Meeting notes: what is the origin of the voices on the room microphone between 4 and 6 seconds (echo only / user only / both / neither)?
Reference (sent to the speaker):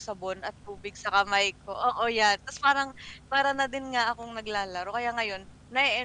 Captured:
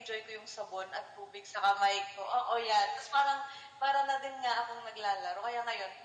echo only